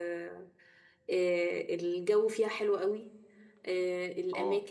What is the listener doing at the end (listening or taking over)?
listening